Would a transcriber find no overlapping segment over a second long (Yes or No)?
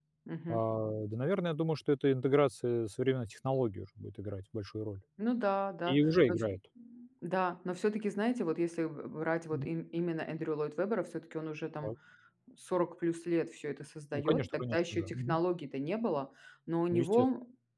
No